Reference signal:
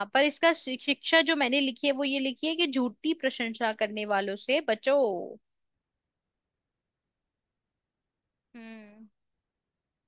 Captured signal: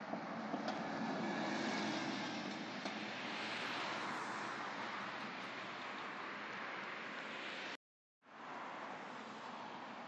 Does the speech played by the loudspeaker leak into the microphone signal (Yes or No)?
No